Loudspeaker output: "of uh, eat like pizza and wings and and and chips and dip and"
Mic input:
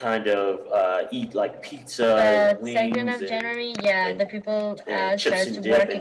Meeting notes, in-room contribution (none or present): present